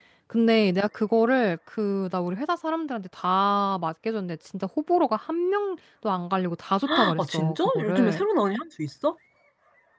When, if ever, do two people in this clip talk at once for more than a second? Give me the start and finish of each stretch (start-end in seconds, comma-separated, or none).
7.0-8.2